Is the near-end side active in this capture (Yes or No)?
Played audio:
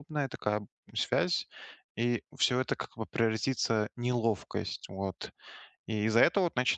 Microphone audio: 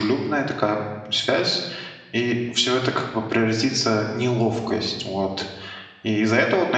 No